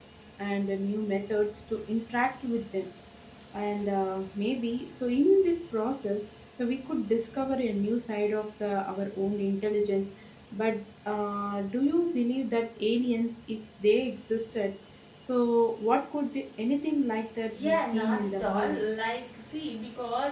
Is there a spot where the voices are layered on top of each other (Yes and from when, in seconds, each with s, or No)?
Yes, from 17.5 s